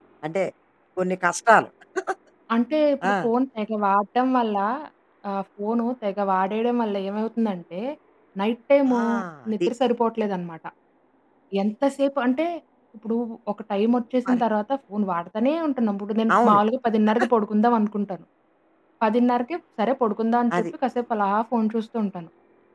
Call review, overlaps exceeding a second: none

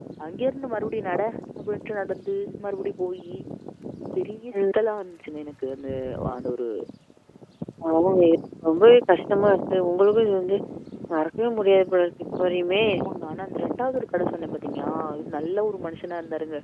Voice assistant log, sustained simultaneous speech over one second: none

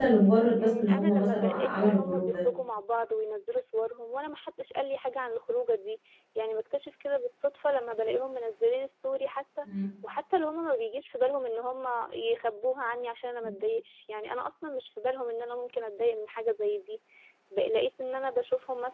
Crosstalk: present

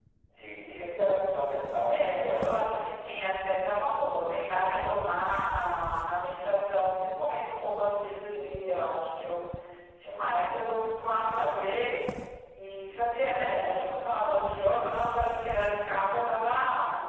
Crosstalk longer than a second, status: present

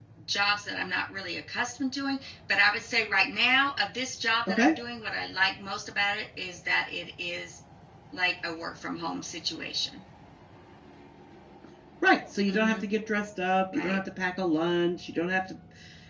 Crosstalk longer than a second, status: none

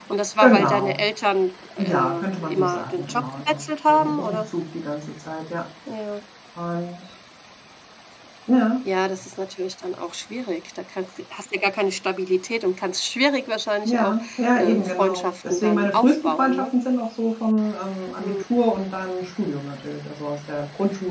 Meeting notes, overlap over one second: present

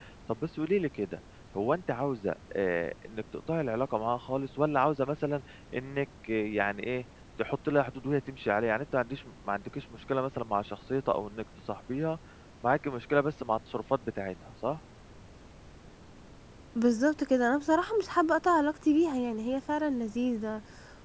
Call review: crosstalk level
none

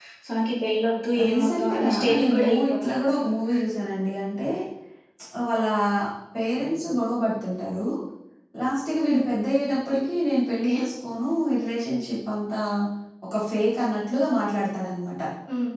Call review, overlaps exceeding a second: present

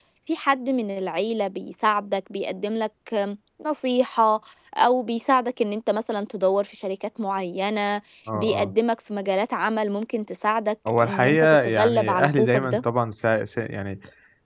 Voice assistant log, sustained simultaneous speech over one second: present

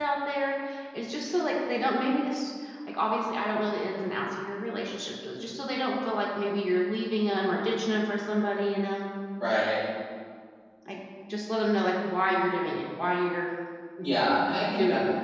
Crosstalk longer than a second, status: none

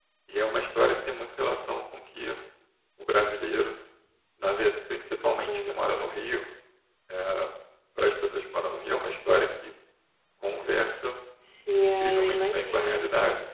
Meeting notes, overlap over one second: present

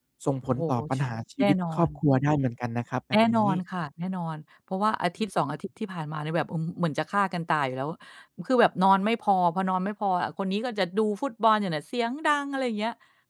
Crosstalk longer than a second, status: none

